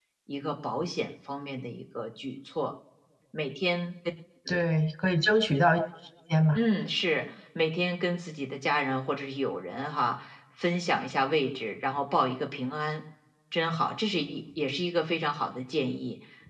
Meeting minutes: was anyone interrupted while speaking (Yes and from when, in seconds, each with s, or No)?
No